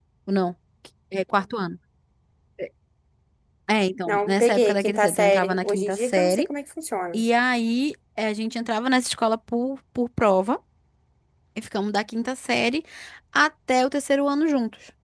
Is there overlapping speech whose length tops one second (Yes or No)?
Yes